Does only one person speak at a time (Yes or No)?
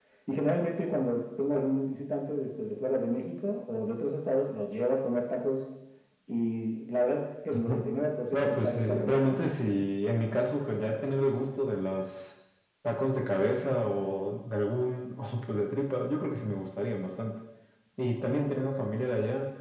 No